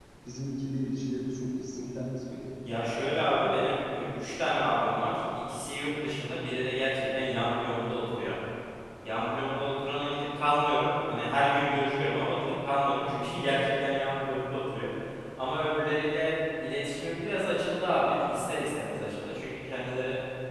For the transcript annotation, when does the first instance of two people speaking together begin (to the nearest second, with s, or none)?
none